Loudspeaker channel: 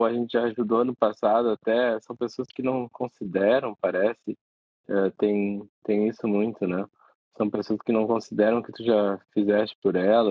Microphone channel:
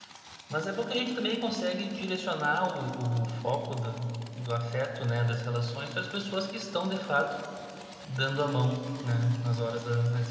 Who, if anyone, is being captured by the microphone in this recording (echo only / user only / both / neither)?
user only